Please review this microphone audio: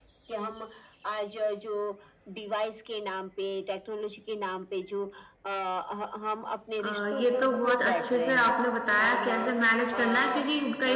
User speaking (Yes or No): Yes